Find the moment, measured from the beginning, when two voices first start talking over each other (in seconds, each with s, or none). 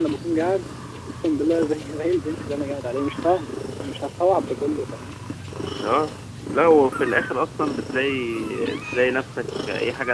none